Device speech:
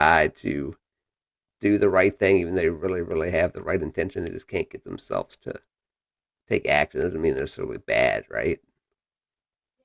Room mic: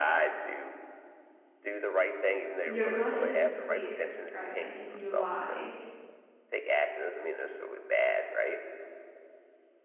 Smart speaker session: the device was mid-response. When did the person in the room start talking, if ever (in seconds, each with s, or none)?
2.6 s